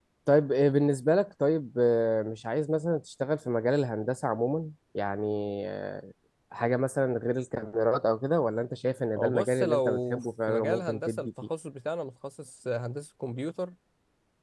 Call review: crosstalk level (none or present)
present